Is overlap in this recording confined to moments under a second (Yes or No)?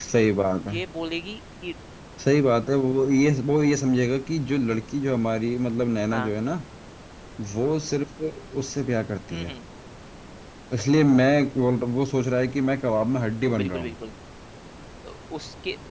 Yes